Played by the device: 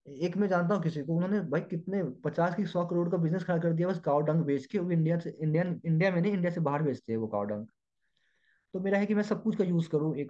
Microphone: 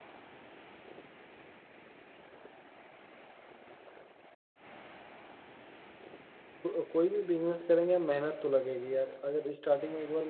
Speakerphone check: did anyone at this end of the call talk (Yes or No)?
Yes